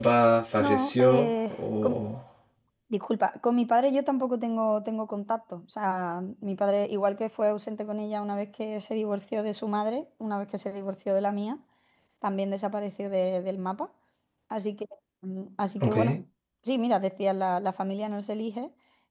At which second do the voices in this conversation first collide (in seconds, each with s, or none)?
0.6 s